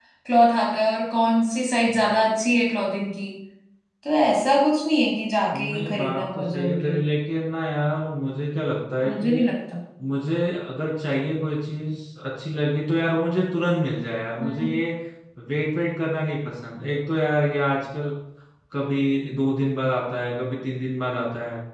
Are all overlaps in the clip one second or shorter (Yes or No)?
No